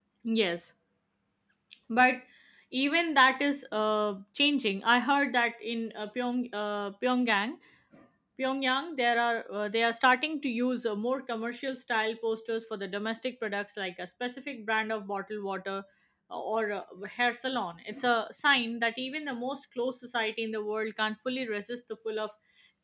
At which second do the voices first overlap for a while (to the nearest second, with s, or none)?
none